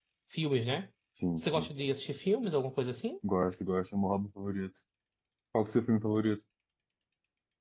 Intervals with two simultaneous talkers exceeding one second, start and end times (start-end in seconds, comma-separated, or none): none